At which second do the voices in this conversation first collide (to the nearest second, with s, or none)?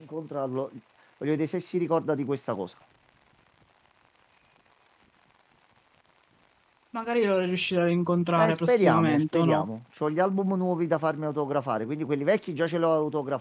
8 s